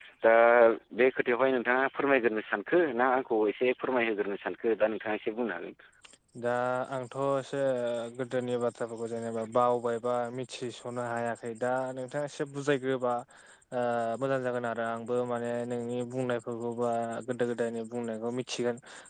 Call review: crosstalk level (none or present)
none